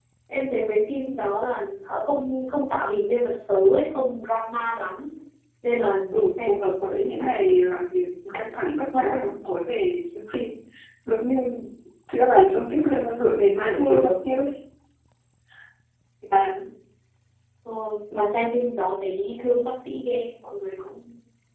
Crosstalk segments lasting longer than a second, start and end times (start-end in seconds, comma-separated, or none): 6.1-7.5